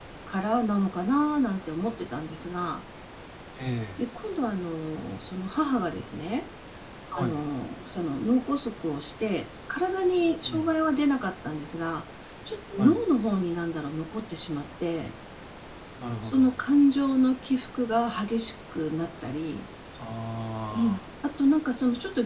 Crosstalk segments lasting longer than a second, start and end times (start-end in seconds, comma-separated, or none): none